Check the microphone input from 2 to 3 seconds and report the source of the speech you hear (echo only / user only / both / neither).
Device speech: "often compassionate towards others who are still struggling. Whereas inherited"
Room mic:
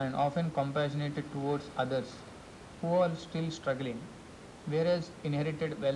echo only